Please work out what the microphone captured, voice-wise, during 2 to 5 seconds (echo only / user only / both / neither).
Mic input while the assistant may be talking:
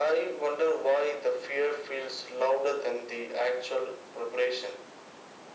echo only